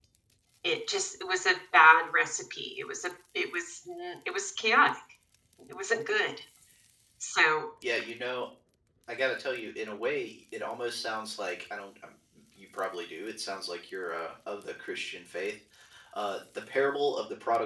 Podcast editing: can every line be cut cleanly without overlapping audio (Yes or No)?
Yes